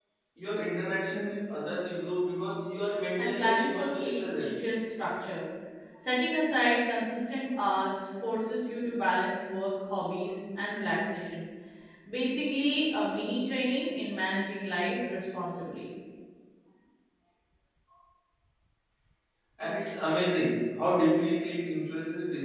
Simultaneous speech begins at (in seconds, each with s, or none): 3.2 s